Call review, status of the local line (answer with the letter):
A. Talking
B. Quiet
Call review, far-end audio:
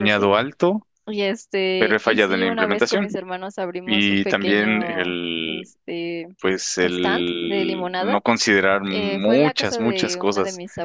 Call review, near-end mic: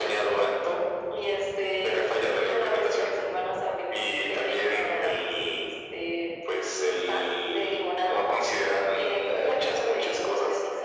B